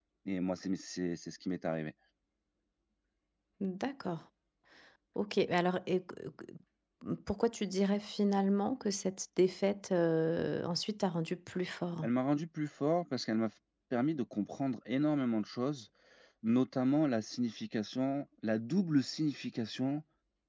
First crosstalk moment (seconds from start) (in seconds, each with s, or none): none